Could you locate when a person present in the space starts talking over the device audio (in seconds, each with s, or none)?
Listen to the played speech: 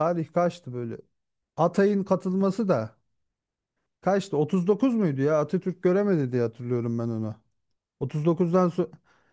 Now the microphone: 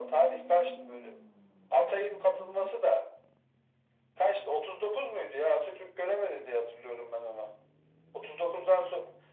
none